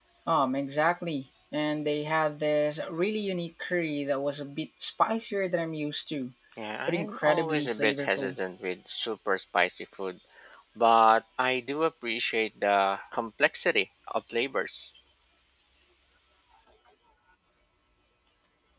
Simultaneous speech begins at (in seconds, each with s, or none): 6.9 s